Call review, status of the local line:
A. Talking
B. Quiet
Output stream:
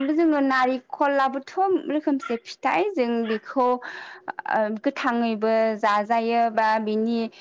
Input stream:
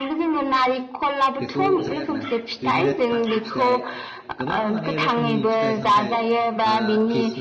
A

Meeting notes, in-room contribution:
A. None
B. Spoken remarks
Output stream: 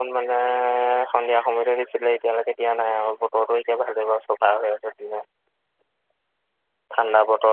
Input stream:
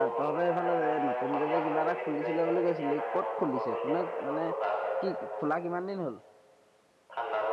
B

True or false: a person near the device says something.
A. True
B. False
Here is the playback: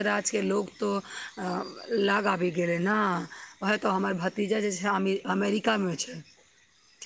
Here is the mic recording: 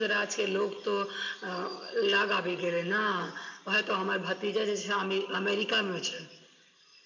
B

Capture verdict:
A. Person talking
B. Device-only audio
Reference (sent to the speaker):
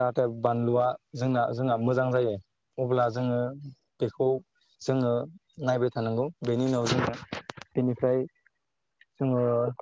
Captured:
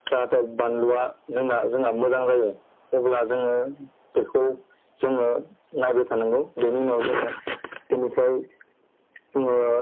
B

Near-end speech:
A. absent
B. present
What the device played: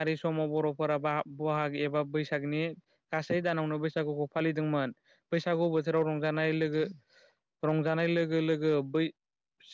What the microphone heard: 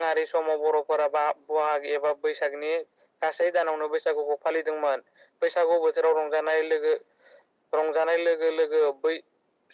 A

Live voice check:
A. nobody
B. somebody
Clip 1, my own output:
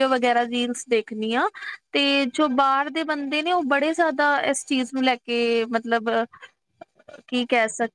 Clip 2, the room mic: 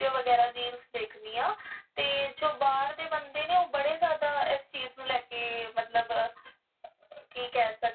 A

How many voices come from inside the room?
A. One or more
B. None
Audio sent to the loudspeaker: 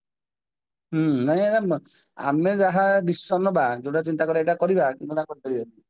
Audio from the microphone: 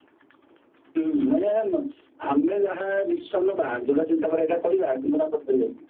B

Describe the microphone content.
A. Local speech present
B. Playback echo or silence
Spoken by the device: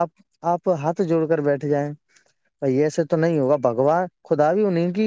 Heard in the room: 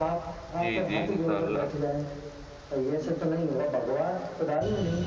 A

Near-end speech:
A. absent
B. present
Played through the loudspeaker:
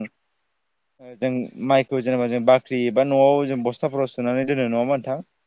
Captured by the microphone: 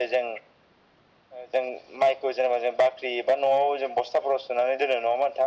A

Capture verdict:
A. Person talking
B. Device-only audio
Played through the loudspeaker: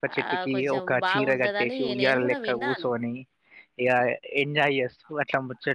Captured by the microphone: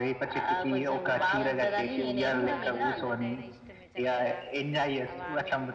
A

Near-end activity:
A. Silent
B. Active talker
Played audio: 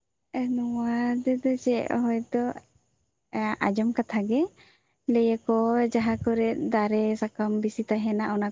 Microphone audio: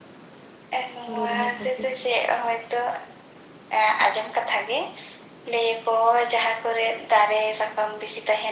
B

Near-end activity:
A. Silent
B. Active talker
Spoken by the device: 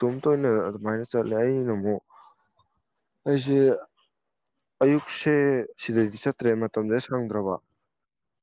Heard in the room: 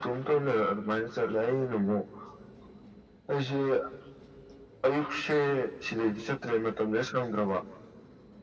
A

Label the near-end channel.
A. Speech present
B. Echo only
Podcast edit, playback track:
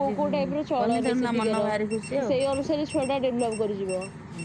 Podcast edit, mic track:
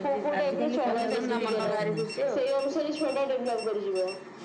A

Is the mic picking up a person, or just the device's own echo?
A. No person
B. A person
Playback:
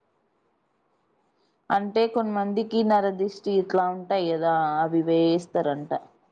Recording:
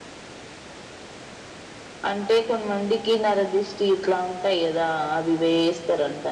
A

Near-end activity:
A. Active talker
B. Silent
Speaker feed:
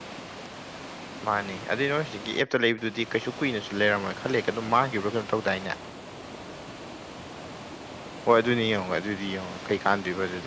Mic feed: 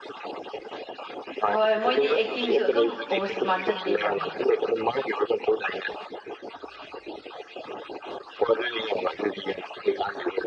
A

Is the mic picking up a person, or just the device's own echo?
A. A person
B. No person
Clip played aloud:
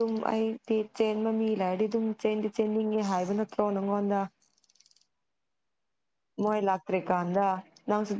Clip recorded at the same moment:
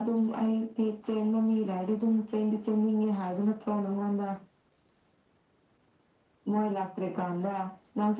B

